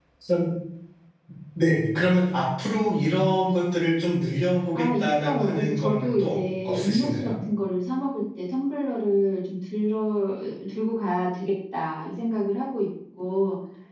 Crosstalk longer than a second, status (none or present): present